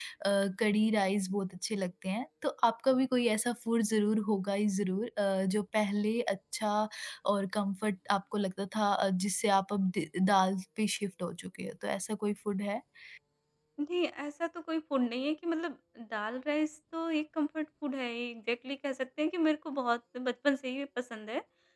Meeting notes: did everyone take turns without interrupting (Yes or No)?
Yes